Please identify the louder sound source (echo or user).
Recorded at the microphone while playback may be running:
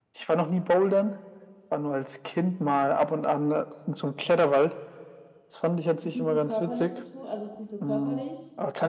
echo